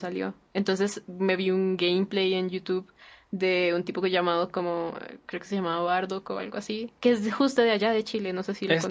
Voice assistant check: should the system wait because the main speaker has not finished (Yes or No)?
No